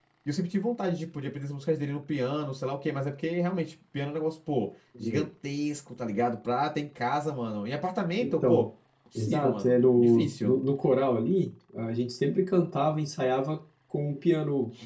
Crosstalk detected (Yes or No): Yes